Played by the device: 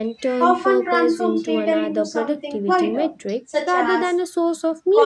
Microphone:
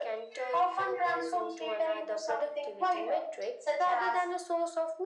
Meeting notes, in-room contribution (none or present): none